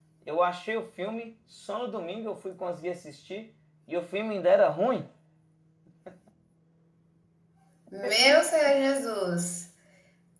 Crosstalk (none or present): none